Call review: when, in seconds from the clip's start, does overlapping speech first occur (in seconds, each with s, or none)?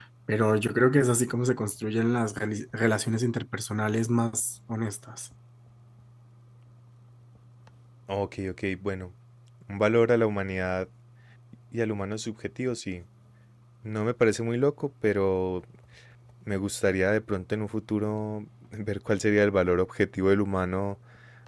none